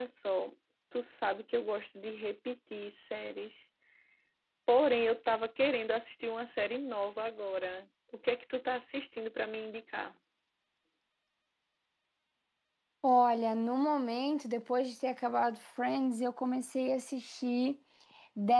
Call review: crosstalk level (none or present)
none